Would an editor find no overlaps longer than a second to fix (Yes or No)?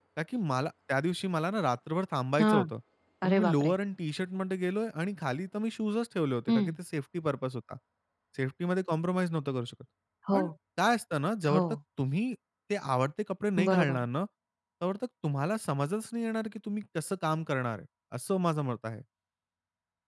Yes